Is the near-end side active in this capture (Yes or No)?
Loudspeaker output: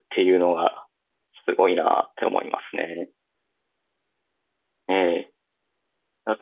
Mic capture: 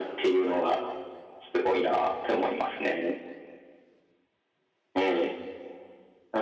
No